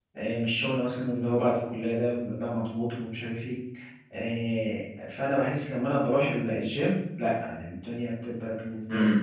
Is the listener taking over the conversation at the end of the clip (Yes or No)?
Yes